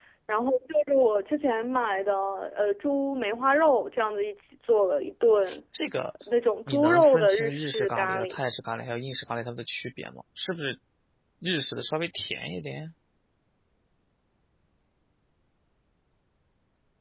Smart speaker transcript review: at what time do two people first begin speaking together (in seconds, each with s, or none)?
6.7 s